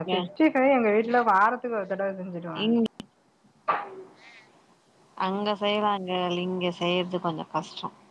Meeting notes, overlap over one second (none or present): none